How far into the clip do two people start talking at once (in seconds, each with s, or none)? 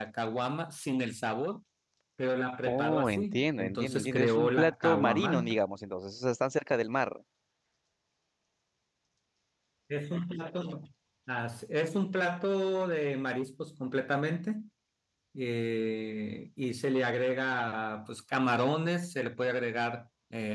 2.6 s